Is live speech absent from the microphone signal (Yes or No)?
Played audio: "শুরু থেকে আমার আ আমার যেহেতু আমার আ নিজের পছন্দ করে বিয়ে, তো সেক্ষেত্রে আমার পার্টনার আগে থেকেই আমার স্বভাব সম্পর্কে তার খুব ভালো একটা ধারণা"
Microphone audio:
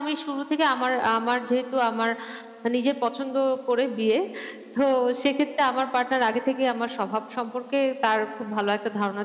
Yes